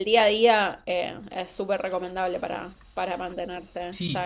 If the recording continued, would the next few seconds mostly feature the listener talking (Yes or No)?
Yes